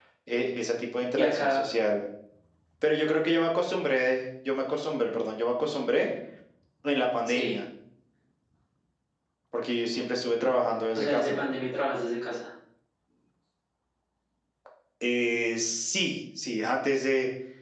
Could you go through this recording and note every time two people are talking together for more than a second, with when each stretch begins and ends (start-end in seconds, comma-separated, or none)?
none